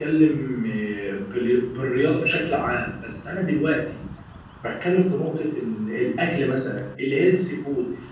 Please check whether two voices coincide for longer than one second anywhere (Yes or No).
No